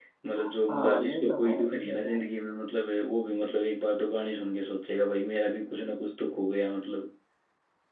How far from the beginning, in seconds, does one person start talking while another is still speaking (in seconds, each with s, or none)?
0.7 s